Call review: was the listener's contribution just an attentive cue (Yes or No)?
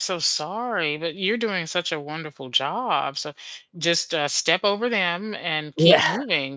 Yes